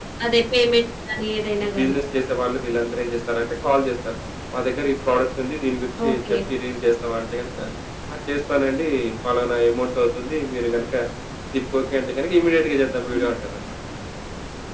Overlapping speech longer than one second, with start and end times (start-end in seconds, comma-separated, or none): none